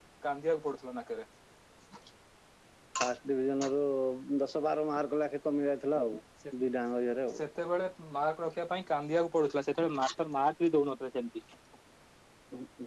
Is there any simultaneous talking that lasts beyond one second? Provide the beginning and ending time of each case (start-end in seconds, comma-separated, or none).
none